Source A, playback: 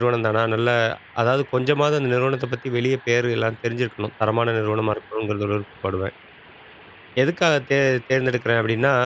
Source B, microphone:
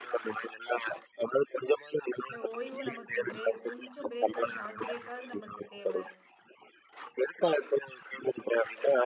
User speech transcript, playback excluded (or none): இல்ல ஓய்வு நமக்கு பிரேக் கொஞ்சம் பிரேக்கா ஷார்ட் பிரேக்காவது நமக்கு தேவ.